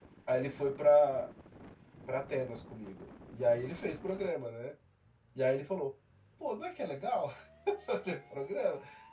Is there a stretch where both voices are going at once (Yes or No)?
No